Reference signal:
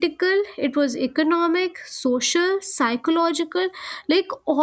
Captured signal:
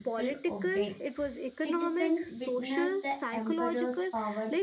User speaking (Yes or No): Yes